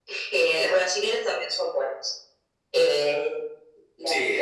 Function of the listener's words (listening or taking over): listening